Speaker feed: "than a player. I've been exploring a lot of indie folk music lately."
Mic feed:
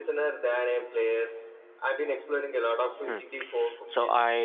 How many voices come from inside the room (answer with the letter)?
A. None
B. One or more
B